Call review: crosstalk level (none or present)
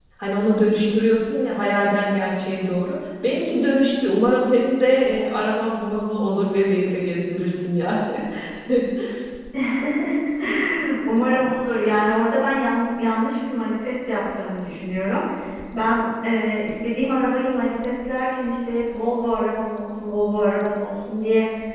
none